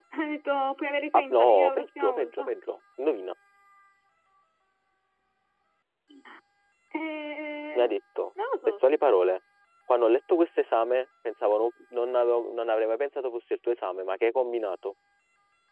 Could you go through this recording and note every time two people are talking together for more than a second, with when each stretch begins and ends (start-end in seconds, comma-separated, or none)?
1.1-2.5